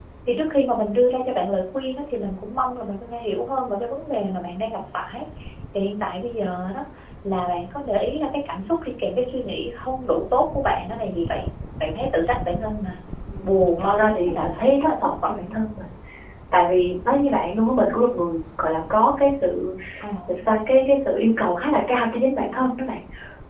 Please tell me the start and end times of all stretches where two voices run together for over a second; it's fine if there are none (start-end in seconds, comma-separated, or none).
13.4-15.5